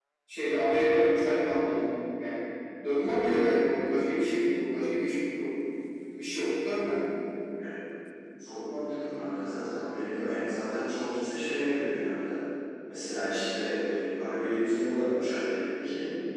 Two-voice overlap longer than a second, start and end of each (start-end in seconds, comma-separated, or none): none